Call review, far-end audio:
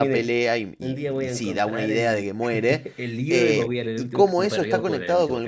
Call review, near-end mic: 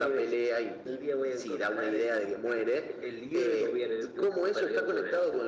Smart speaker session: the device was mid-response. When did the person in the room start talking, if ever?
none

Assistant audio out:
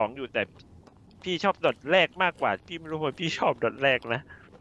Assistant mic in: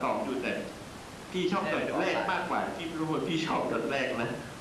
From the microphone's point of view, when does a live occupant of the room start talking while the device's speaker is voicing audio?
1.5 s

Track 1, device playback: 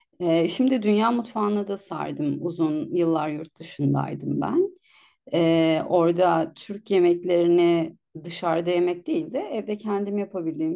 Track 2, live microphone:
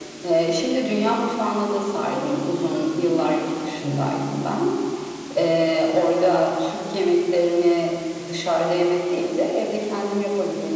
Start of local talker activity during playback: 2.1 s

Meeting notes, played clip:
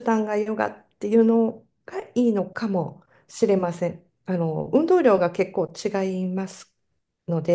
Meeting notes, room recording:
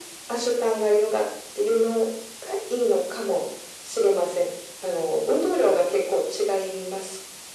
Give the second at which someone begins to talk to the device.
none

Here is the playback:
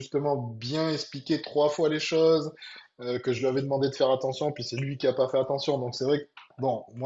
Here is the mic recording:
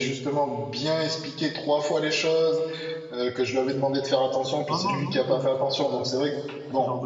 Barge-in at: 4.7 s

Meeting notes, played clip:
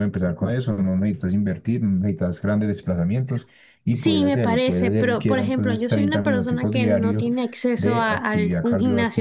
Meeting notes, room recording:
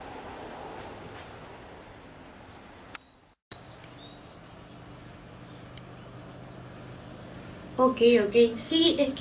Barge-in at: 7.8 s

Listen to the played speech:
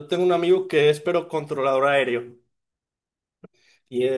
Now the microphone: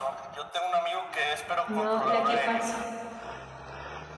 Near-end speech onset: 1.6 s

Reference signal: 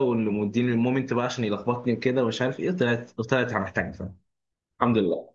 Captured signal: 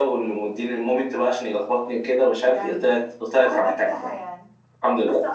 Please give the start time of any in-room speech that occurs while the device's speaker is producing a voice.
2.4 s

